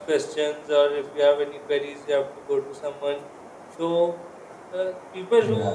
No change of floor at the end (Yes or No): Yes